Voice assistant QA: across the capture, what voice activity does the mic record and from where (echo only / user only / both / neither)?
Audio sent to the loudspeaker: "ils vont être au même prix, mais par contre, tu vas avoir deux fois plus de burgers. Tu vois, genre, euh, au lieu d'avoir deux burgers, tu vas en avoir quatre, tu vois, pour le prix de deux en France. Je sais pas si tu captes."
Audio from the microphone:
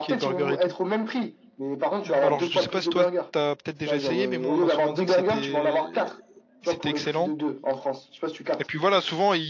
both